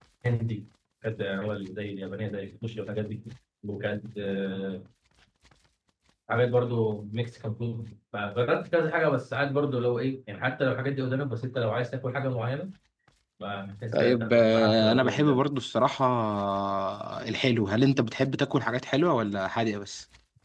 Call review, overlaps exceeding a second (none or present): present